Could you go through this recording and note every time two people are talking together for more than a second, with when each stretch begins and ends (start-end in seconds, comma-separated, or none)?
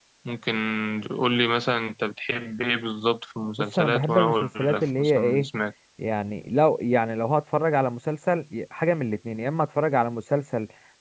3.6-5.5